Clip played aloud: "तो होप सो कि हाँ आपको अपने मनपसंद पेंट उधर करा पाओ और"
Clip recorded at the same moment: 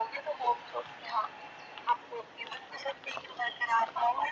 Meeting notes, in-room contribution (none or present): none